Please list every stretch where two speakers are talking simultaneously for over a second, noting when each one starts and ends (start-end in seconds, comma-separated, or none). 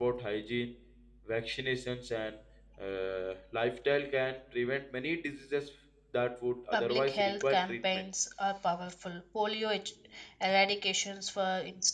6.7-8.0